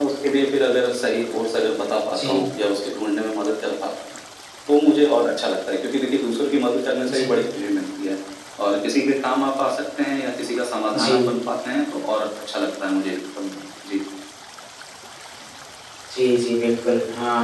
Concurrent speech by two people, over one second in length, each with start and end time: none

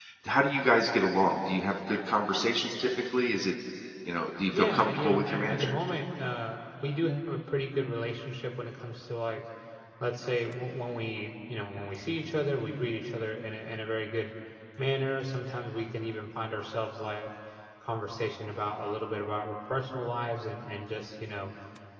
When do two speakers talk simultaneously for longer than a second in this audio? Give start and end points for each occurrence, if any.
4.5-5.7

